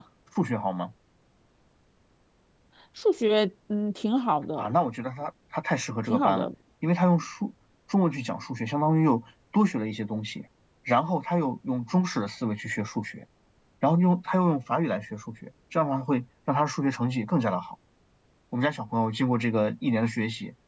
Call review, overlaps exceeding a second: none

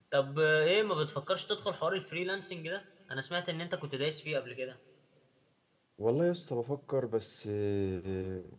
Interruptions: none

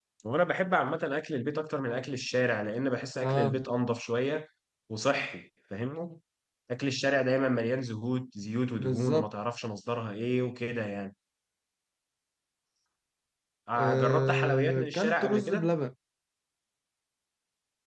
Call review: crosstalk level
present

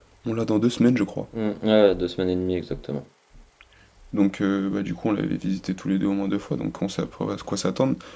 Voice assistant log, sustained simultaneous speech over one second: none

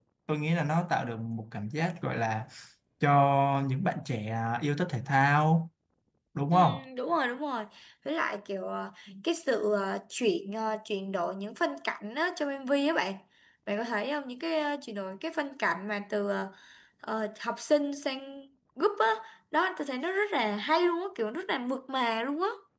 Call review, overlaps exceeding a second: none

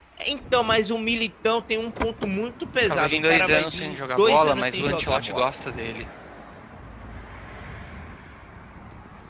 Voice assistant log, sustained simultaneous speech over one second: present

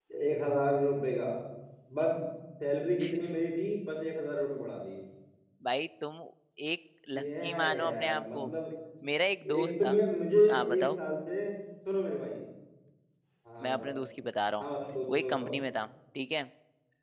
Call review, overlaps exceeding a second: present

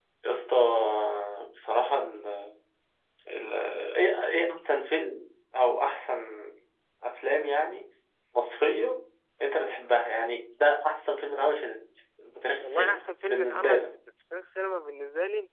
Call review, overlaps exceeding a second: present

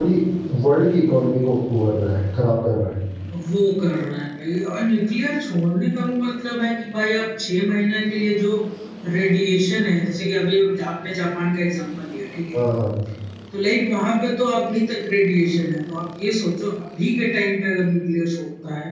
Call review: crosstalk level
none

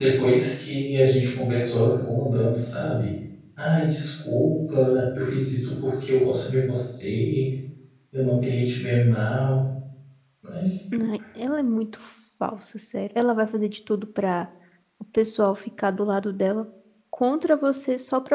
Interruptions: none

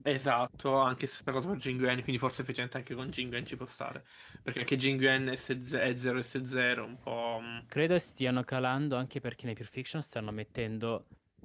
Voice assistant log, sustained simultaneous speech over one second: none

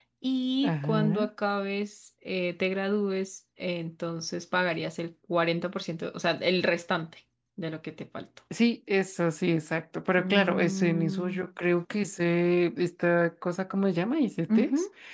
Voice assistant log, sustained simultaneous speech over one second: present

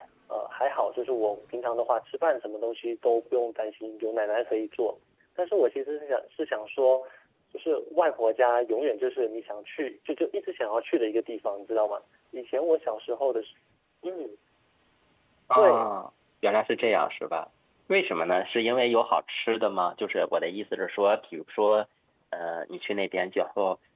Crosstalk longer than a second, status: none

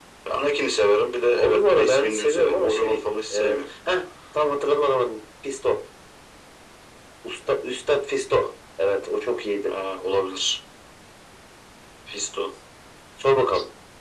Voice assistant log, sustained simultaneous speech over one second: present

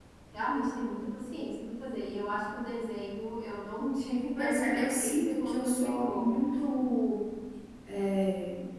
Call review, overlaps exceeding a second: present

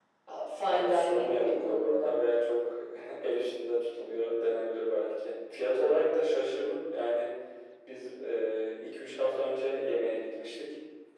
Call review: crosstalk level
present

